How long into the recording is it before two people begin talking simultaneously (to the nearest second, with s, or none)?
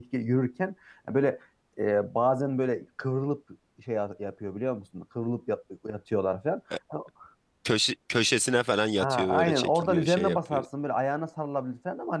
9 s